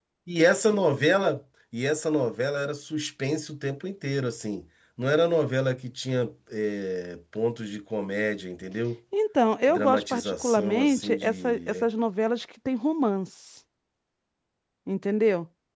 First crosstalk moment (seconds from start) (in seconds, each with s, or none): 9.7 s